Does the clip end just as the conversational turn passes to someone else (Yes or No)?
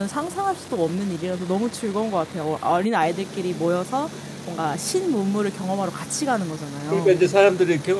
Yes